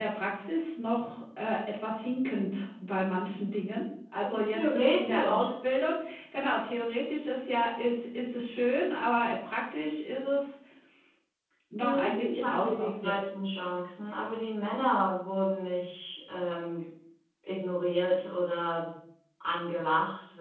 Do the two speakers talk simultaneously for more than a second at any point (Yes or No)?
Yes